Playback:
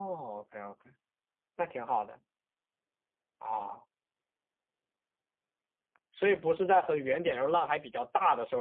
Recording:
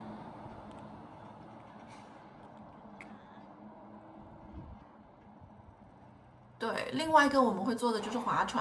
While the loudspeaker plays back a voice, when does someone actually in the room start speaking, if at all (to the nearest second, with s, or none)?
7 s